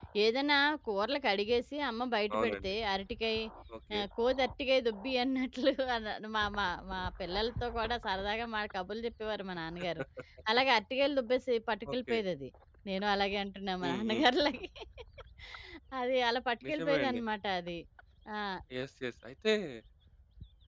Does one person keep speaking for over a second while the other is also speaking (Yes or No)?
No